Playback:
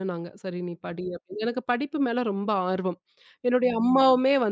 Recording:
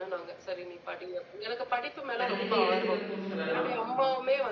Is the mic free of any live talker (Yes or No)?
No